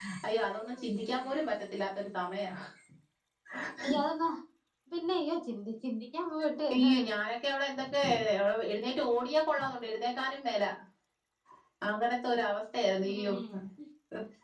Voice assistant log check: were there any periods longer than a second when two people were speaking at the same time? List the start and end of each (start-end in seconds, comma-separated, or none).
none